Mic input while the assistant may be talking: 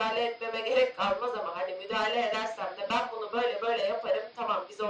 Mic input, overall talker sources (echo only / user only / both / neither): echo only